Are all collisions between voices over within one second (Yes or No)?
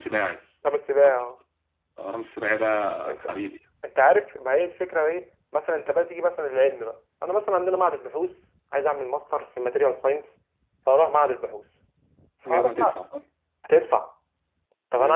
Yes